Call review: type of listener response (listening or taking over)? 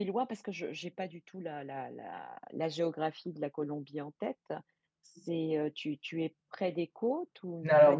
taking over